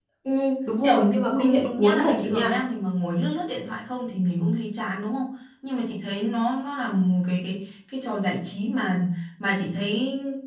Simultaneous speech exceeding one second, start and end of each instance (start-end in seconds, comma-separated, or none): 0.8-2.6